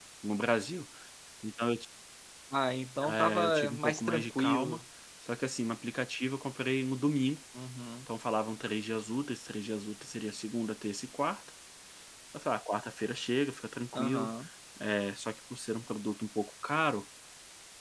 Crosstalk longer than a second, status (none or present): present